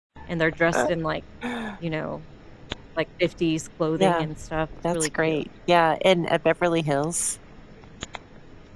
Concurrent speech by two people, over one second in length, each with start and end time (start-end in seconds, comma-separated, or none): none